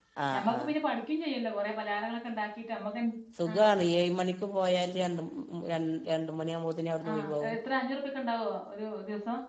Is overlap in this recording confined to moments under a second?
Yes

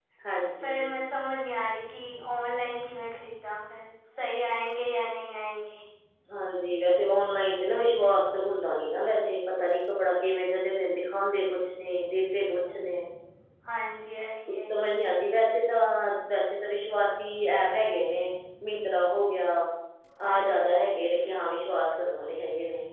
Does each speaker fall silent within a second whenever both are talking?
Yes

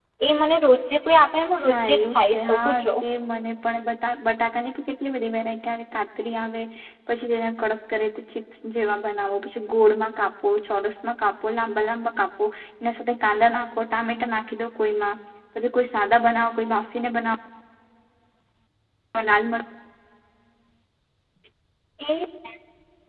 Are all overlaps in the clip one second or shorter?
No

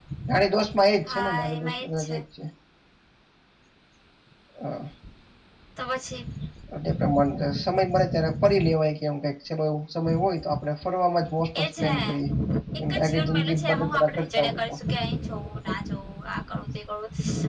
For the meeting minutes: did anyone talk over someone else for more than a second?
Yes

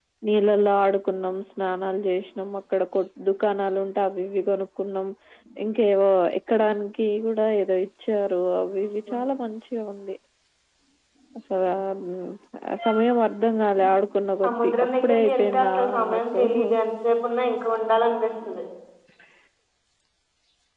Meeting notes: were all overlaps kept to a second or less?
No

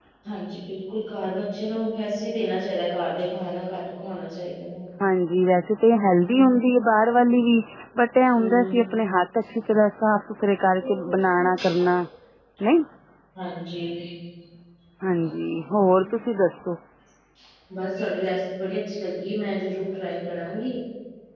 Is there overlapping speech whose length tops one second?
No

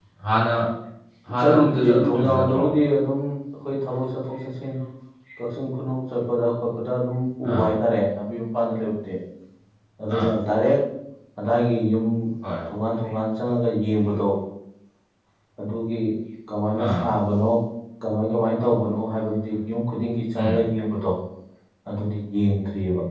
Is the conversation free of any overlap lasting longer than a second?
No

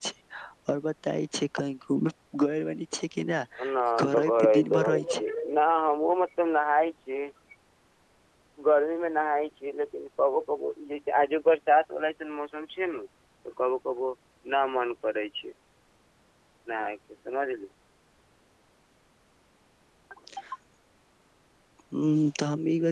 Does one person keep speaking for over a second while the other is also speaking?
Yes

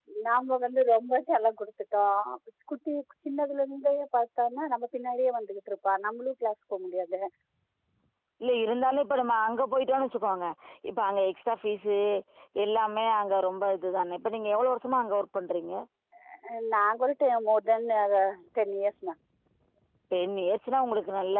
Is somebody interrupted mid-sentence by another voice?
No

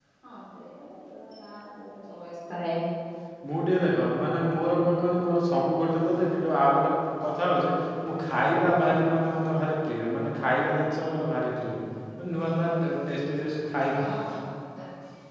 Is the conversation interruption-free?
Yes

